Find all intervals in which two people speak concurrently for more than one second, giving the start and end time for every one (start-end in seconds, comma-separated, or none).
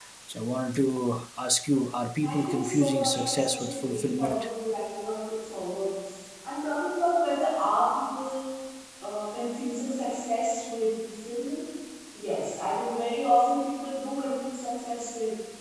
2.2-4.5